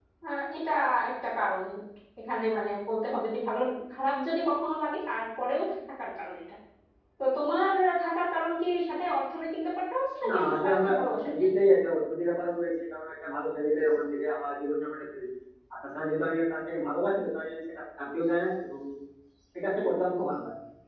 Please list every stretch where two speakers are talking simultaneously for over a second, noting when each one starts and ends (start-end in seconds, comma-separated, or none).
10.3-11.5